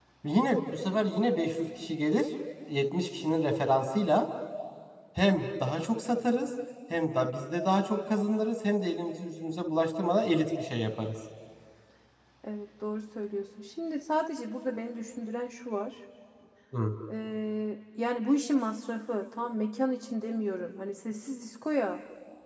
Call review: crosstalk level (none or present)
none